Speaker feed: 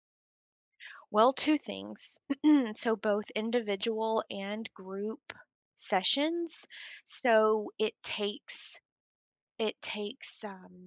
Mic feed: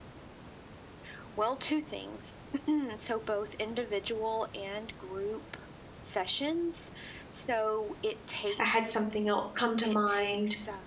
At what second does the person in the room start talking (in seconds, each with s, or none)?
8.6 s